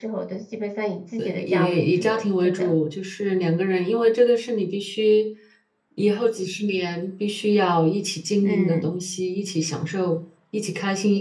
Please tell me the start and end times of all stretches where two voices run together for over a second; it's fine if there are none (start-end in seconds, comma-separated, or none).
1.2-2.8